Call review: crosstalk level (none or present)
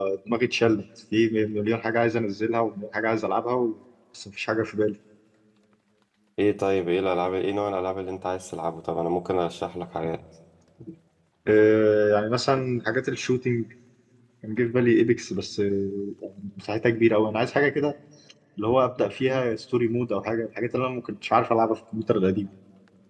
none